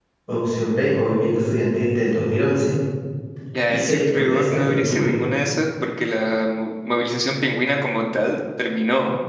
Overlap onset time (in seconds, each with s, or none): 3.7 s